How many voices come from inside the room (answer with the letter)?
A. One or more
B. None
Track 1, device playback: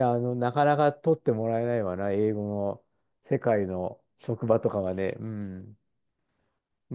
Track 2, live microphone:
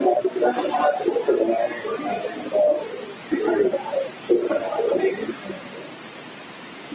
B